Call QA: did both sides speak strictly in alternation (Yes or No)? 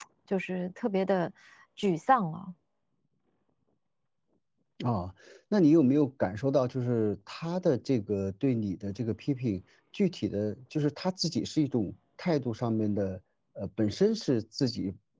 Yes